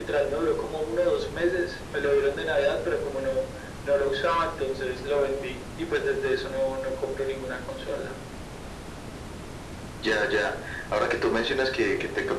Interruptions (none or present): none